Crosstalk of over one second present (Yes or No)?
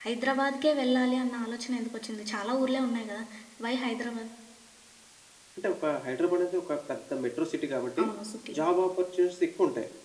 No